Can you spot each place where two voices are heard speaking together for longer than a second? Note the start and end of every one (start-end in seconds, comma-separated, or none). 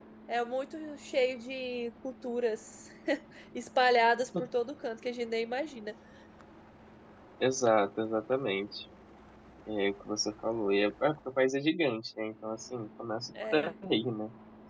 none